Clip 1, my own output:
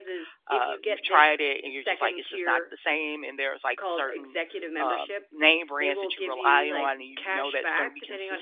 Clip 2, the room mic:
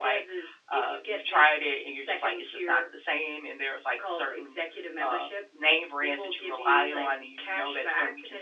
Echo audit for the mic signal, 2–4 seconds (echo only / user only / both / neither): echo only